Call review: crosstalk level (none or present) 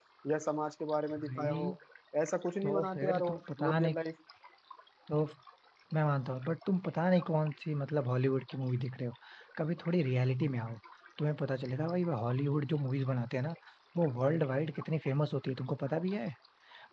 present